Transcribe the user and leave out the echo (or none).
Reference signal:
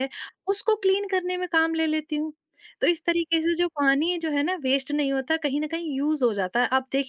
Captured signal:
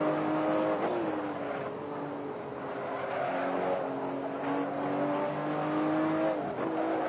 none